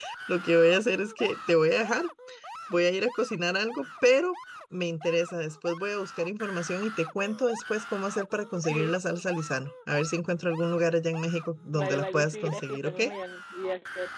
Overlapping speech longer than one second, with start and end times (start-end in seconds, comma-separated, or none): 11.7-13.0